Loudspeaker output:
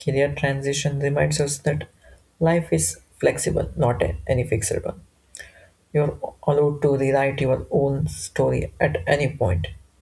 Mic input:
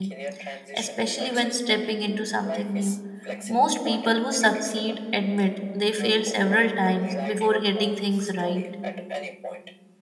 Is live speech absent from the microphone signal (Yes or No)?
No